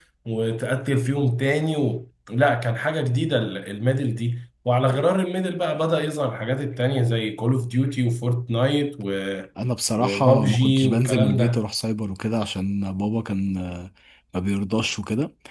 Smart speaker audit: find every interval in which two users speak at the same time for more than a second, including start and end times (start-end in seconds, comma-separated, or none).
10.0-11.6